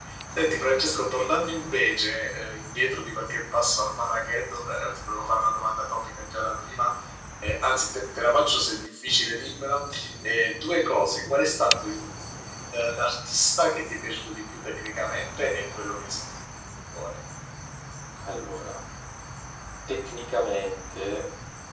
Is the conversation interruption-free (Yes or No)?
Yes